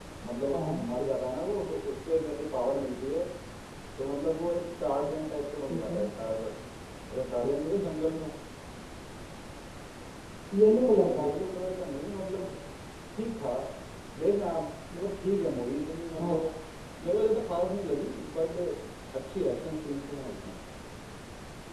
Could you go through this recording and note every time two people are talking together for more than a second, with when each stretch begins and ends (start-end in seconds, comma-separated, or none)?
none